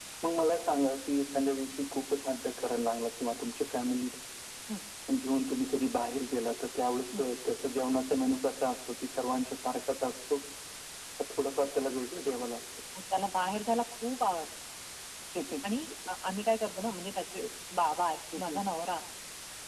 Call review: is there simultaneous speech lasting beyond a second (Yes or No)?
No